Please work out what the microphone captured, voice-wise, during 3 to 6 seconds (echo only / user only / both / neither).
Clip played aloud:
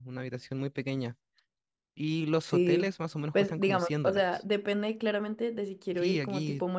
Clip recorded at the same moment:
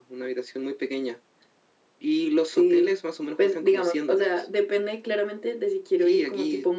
echo only